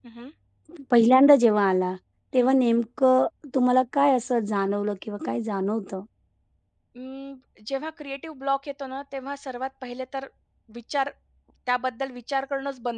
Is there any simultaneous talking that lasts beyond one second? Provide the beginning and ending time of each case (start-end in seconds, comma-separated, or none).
none